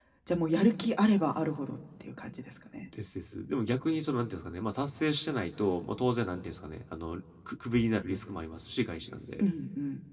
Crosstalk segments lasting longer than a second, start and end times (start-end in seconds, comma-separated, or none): none